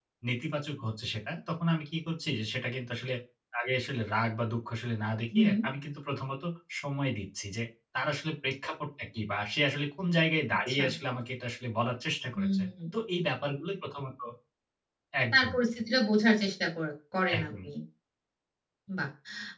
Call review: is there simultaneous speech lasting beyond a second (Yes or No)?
No